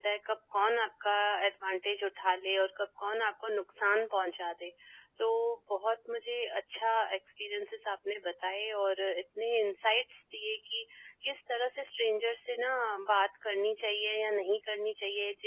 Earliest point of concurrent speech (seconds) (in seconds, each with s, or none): none